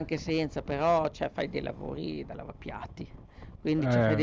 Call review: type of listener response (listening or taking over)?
listening